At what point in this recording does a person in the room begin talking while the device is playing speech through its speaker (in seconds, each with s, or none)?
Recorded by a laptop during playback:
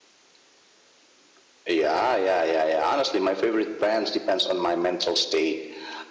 none